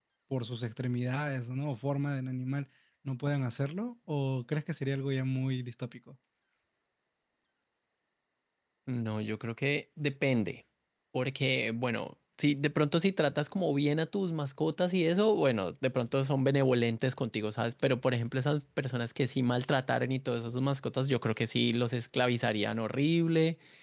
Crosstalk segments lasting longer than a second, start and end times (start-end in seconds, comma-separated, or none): none